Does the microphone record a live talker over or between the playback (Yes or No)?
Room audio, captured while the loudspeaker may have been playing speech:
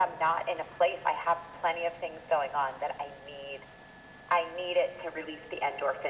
No